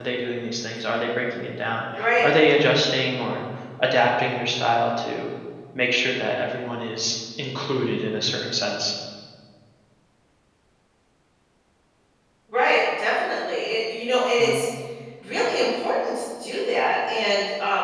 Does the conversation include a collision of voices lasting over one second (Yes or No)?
No